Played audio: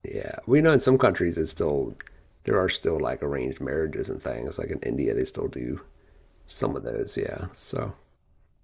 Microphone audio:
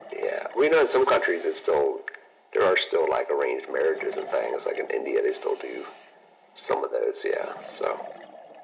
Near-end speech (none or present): none